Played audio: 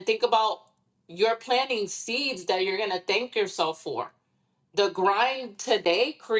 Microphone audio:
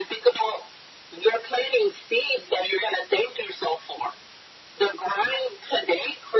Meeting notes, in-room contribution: none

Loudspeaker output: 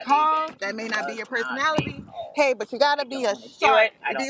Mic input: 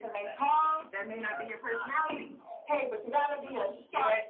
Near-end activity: none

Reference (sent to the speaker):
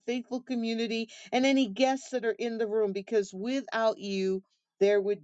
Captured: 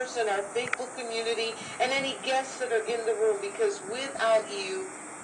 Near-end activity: none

